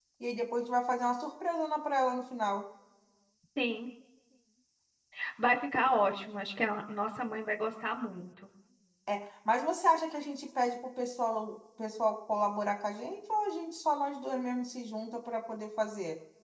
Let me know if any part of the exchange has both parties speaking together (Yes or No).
No